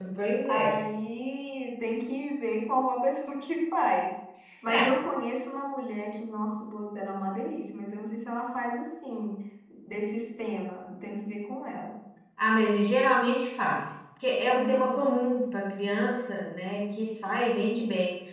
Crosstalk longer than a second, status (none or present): none